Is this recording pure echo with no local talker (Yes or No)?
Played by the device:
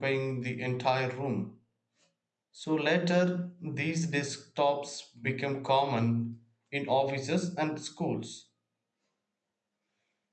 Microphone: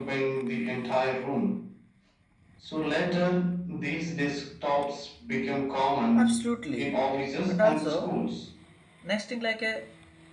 No